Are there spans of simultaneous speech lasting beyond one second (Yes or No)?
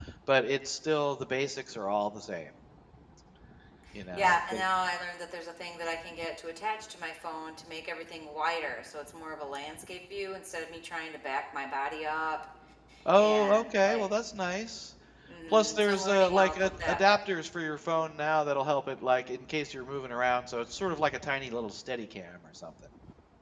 Yes